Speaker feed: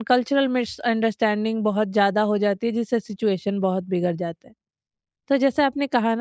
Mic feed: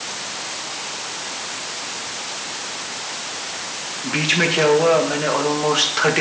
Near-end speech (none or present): present